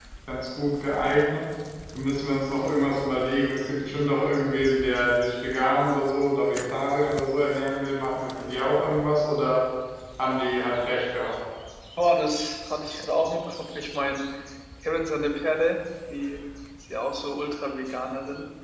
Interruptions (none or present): none